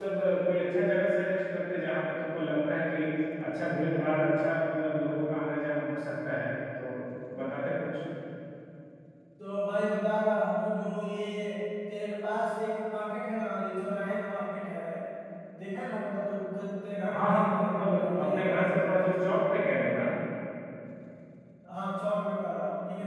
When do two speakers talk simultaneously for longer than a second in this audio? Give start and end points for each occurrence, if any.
17.1-18.6

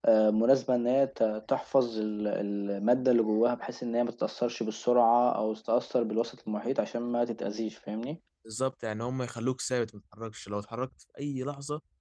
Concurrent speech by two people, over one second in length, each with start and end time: none

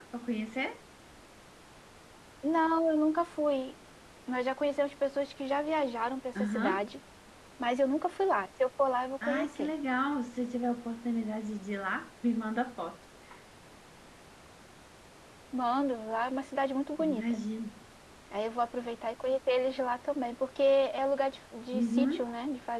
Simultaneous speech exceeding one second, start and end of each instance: none

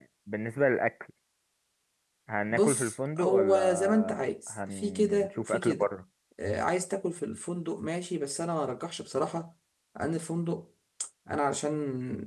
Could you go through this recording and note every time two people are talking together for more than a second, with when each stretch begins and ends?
2.5-5.9

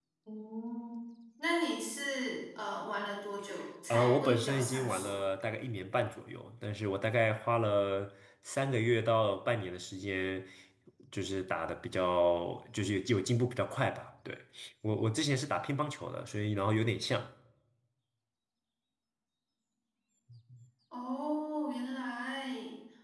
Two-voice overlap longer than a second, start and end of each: 3.9-5.1

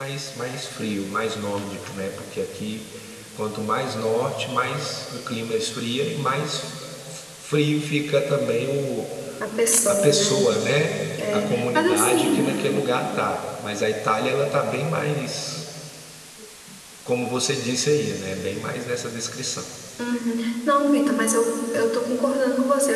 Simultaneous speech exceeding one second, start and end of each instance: 11.3-12.6

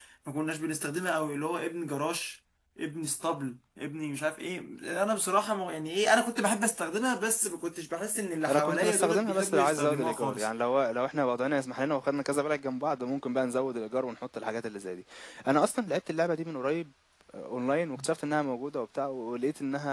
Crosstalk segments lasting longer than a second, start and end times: 8.5-10.5

